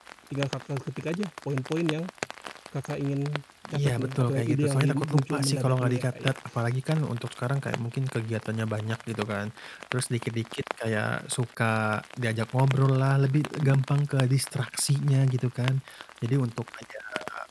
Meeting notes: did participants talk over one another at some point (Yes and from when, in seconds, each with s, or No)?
Yes, from 3.6 s